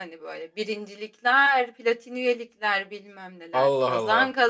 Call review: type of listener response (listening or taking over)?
listening